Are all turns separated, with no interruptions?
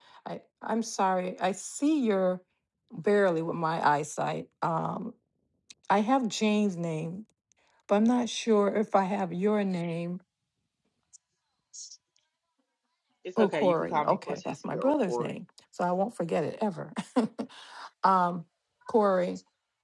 No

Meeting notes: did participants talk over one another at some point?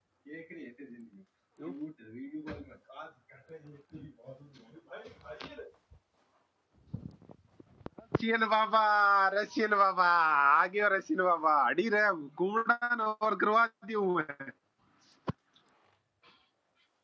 No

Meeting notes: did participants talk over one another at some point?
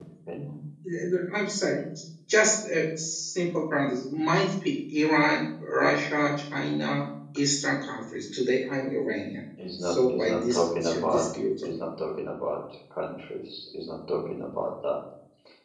Yes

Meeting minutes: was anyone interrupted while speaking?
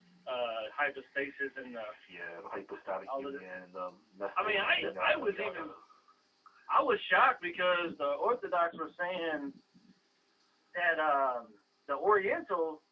Yes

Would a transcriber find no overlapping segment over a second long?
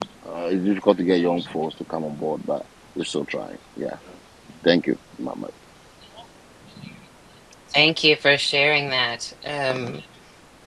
Yes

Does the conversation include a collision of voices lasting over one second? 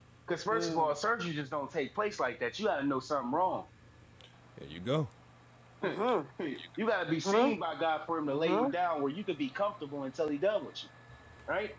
No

